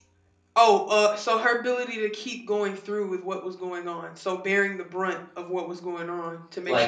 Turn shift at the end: No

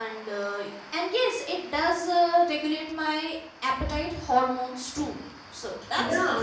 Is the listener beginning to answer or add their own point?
Yes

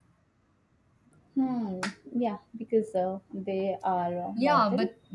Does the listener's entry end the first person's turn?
Yes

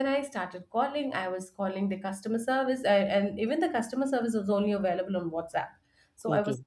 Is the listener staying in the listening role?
Yes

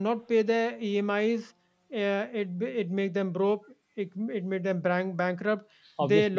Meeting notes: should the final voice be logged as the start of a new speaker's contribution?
No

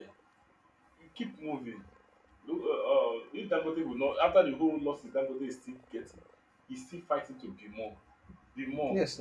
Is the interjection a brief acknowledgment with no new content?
Yes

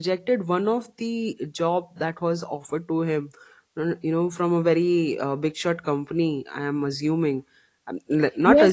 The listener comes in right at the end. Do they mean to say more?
Yes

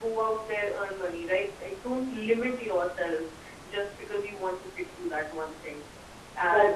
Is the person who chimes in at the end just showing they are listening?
No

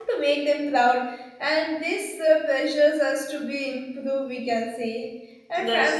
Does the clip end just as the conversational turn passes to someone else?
No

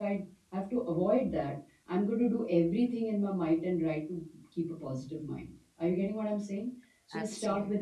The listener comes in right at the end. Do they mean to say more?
No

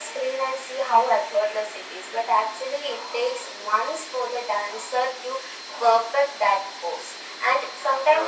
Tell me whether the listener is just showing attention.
Yes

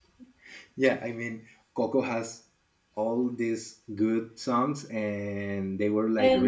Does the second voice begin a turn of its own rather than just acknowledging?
No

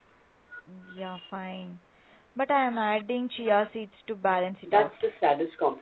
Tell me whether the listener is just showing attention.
No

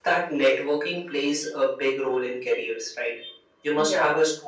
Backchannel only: Yes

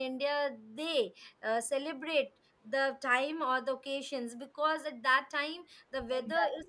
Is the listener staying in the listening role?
Yes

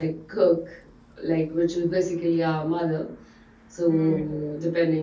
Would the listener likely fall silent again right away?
Yes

